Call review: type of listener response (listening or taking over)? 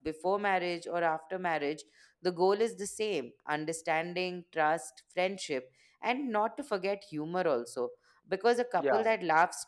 listening